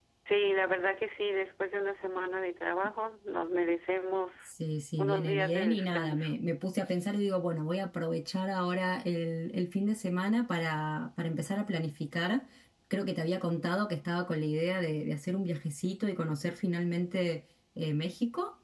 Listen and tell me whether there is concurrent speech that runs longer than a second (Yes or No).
Yes